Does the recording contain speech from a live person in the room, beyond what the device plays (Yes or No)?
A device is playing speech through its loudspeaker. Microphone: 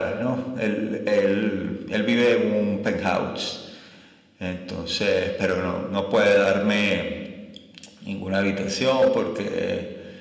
No